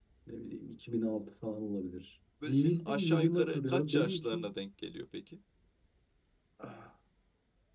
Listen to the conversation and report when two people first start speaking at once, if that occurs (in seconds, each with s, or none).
2.4 s